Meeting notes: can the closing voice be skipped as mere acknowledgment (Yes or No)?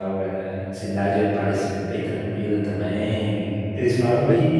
Yes